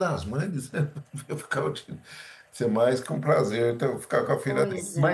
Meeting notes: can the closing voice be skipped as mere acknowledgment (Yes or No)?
Yes